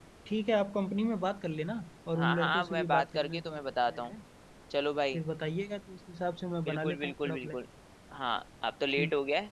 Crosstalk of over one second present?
Yes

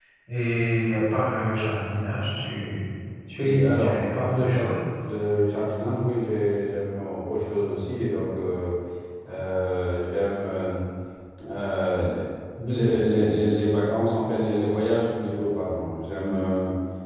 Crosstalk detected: Yes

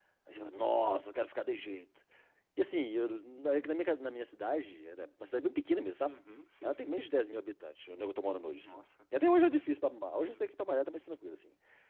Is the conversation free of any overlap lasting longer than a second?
Yes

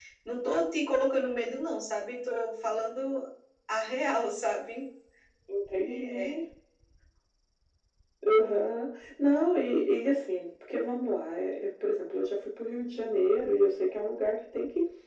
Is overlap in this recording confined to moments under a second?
Yes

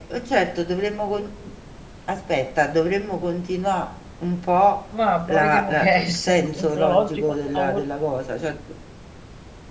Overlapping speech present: Yes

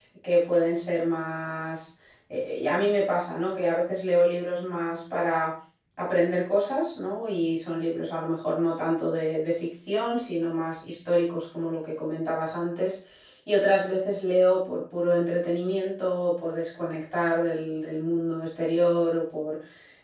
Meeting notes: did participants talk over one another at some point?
No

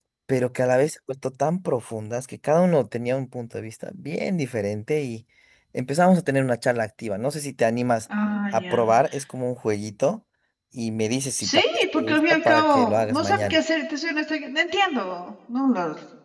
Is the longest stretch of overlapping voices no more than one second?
No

